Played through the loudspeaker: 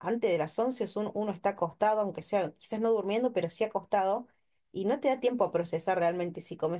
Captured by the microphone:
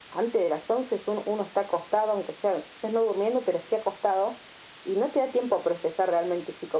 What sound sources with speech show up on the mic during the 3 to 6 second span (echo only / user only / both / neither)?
echo only